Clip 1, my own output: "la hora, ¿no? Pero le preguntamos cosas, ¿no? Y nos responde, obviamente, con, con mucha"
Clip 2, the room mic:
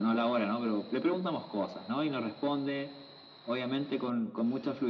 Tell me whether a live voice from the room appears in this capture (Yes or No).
No